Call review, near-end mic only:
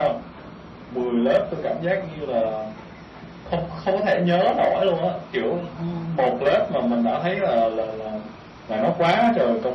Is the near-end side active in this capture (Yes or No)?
No